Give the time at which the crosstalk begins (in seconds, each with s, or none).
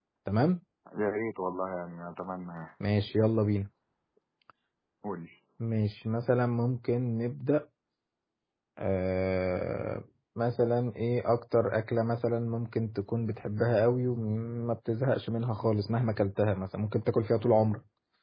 none